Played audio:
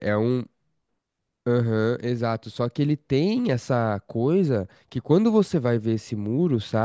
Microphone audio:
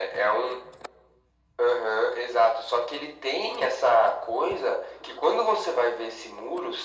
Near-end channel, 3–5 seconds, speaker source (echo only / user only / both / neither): echo only